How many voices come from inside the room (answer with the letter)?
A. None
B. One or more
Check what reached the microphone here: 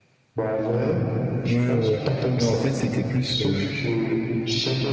B